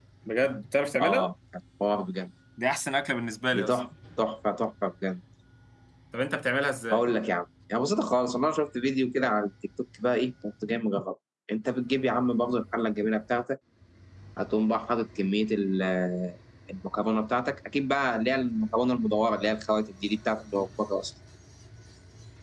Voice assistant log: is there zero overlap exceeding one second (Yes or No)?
Yes